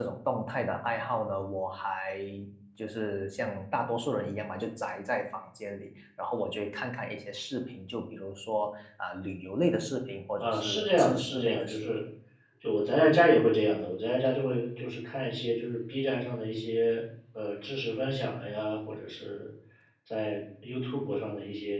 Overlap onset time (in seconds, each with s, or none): 10.4 s